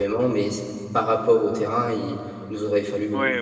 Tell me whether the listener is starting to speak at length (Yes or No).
Yes